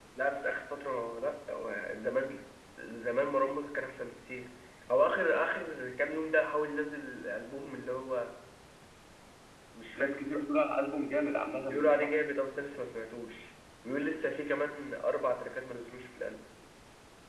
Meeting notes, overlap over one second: none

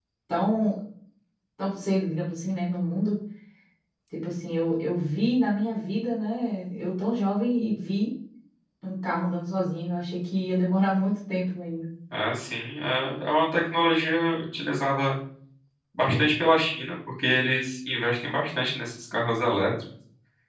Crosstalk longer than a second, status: none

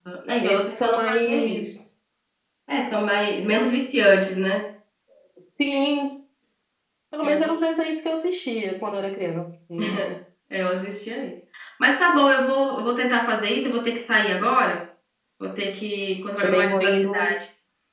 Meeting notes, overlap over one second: present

